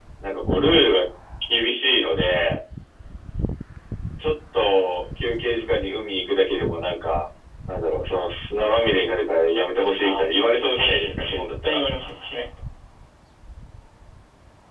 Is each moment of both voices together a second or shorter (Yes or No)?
No